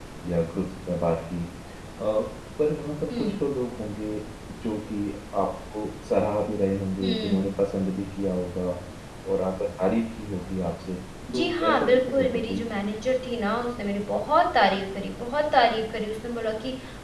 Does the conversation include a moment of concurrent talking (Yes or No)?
Yes